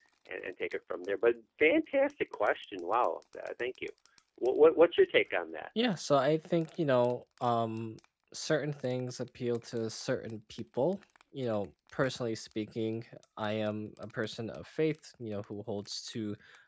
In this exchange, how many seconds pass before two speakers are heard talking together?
none

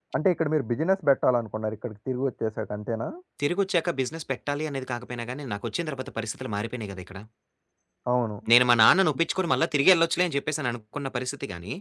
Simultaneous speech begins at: none

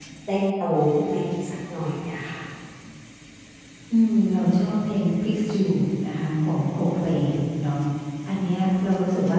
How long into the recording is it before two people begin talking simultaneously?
none

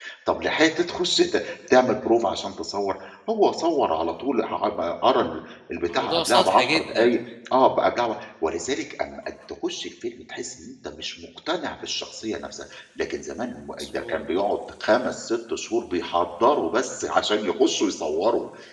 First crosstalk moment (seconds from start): 5.9 s

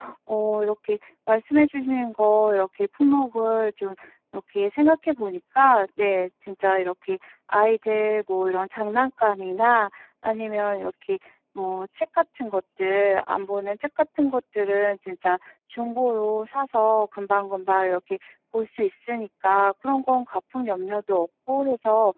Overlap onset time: none

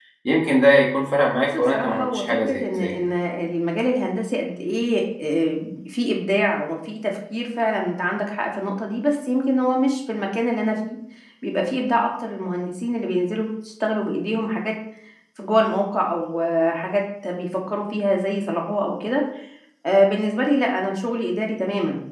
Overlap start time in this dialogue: 1.4 s

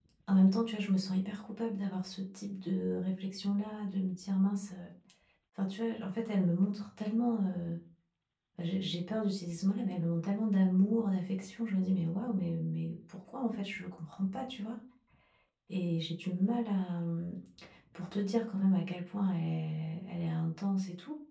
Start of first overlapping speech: none

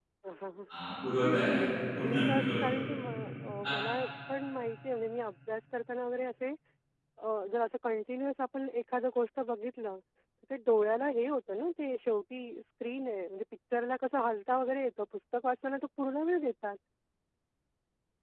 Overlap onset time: 1.2 s

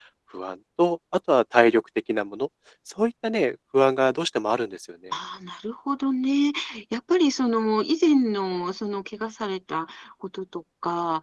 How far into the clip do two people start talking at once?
none

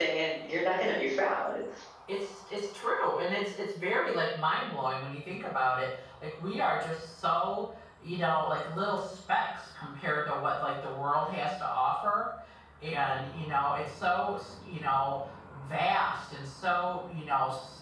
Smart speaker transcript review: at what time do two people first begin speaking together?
none

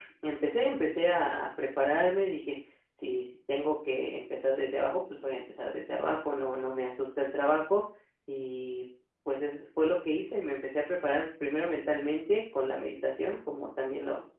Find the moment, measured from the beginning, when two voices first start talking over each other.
none

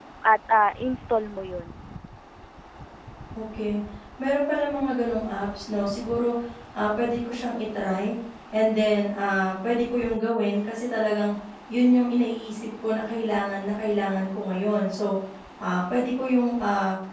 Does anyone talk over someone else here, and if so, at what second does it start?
none

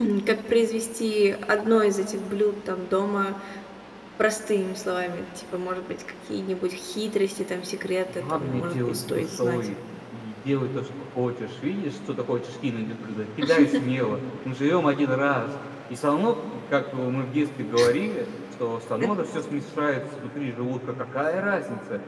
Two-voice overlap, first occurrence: 8.1 s

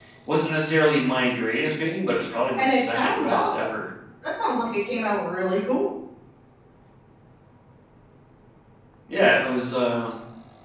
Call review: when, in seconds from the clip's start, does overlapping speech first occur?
2.6 s

